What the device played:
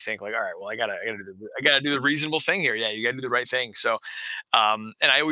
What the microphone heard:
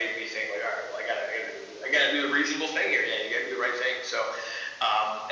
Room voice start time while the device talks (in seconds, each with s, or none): none